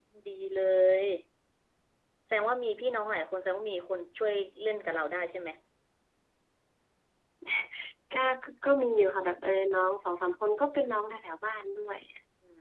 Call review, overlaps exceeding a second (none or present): none